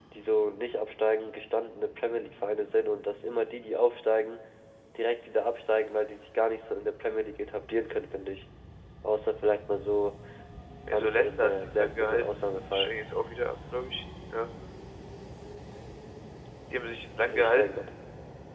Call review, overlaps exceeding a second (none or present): present